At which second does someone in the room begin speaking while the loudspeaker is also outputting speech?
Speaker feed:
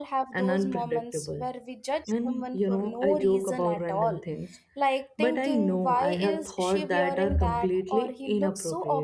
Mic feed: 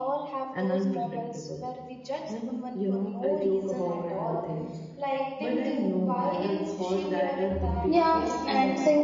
7.8 s

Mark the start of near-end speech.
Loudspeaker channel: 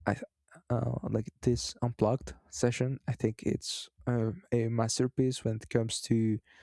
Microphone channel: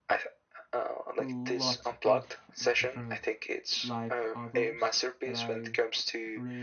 1.2 s

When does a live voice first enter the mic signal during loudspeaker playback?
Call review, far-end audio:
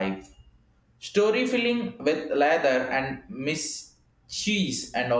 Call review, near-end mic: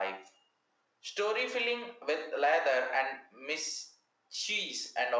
none

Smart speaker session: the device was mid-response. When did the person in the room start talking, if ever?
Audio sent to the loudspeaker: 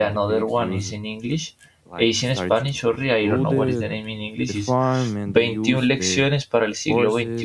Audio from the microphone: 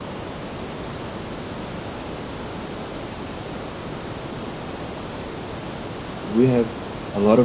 6.2 s

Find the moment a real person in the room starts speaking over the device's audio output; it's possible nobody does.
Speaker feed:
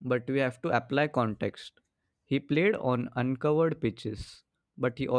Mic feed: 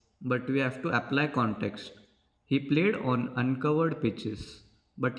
none

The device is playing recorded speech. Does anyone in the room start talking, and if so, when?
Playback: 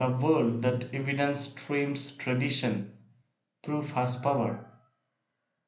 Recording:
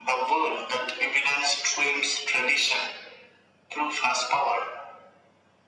none

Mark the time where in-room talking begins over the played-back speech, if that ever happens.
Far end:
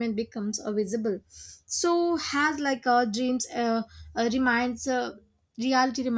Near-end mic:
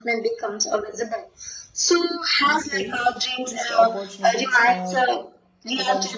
2.4 s

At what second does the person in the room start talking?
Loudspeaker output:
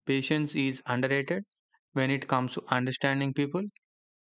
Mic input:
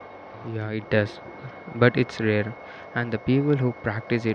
0.4 s

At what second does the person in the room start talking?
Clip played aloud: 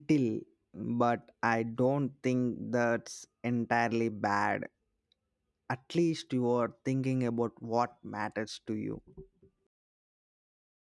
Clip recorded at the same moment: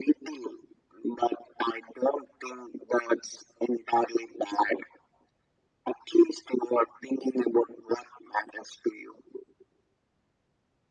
none

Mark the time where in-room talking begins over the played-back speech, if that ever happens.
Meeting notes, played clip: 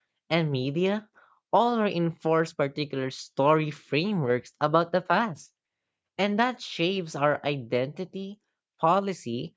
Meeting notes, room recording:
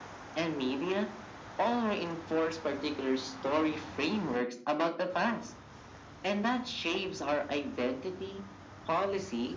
none

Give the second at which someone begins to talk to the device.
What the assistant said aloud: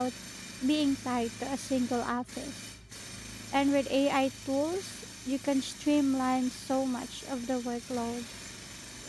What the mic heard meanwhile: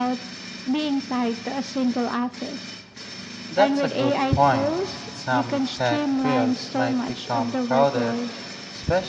3.5 s

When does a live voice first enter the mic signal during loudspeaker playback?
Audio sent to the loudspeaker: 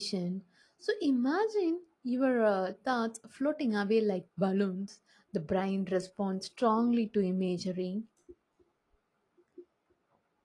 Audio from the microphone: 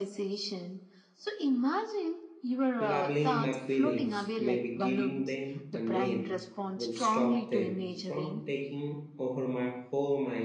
2.8 s

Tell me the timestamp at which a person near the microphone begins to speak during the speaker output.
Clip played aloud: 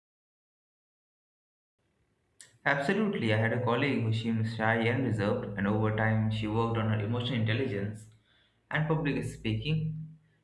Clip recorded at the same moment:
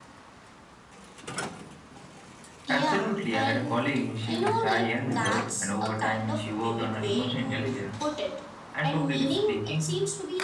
2.6 s

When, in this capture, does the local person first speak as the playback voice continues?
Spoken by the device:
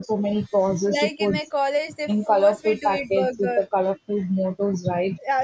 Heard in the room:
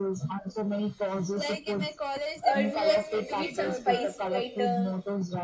2.5 s

